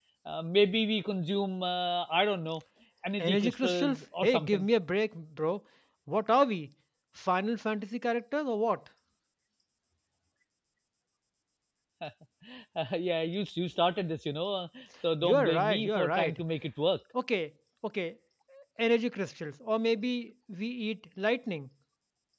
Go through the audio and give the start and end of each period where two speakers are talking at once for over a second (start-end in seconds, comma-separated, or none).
3.2-4.7, 15.2-16.4